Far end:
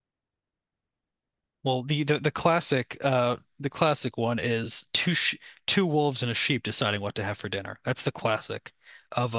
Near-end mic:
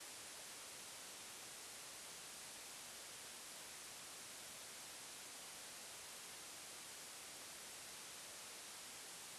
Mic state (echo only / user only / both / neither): neither